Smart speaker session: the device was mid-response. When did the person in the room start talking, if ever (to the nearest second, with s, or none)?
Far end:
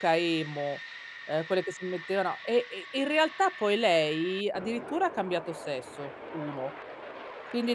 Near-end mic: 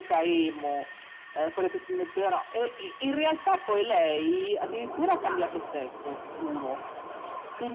5 s